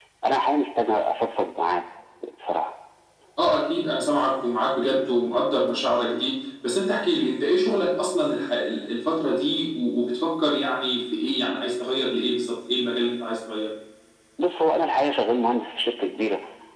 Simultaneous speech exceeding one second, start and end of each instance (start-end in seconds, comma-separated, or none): none